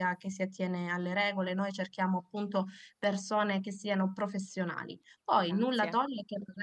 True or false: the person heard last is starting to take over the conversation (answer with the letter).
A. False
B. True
A